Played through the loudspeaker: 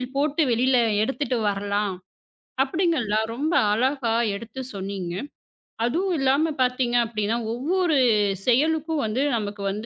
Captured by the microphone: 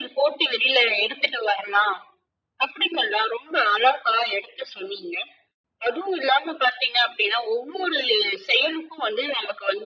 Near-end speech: none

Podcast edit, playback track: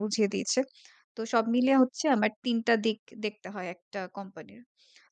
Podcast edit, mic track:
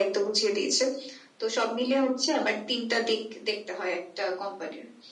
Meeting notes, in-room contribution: none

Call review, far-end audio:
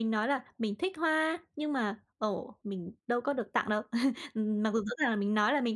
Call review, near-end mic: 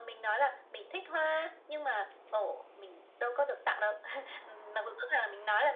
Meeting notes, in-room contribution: none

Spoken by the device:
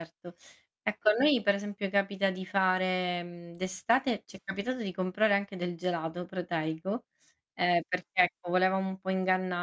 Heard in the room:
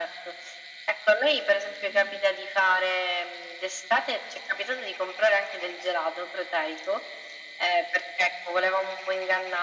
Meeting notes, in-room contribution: none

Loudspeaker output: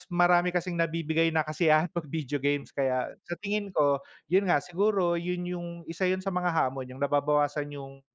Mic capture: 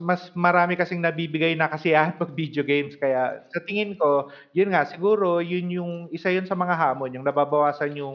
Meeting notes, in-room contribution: none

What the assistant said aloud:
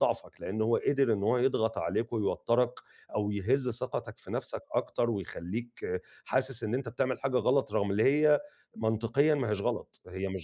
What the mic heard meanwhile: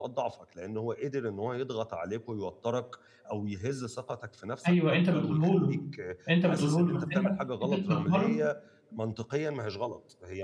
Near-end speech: present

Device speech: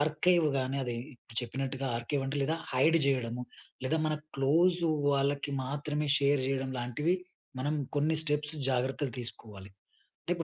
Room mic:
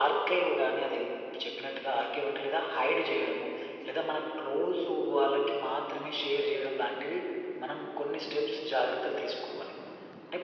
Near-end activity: none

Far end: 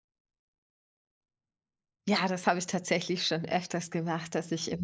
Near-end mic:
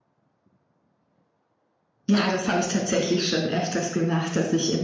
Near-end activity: none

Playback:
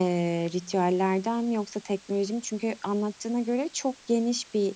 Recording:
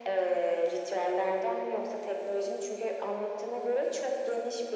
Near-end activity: none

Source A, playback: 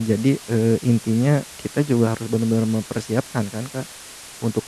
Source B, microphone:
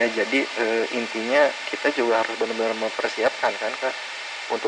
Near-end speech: none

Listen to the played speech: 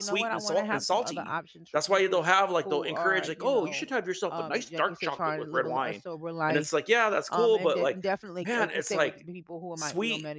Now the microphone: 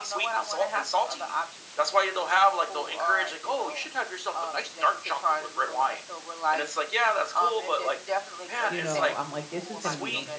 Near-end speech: present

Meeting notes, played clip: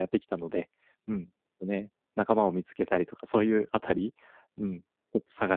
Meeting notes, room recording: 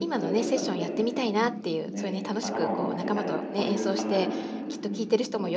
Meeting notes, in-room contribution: present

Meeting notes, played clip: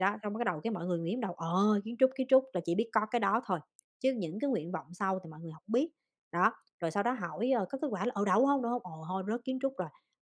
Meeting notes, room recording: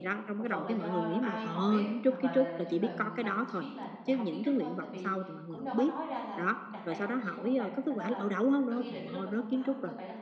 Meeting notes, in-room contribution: present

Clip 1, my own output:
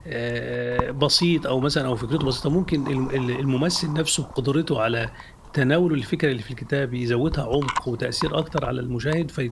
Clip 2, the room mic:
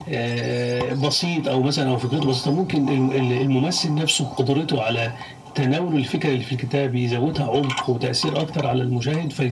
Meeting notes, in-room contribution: none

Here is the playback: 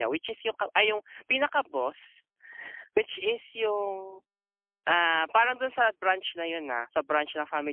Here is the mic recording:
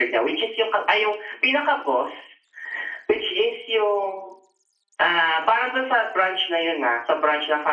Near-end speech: none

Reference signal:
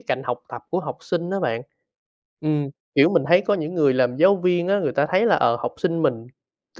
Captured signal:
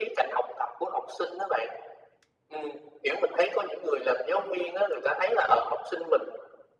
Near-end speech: none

